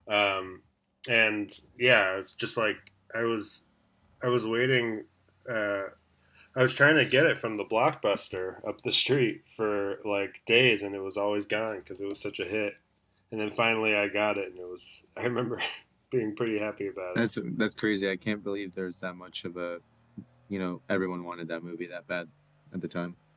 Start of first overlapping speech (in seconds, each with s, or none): none